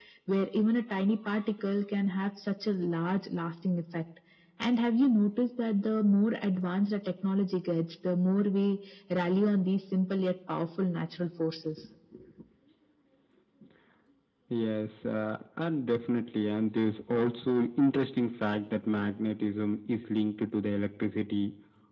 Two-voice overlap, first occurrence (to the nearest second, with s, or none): none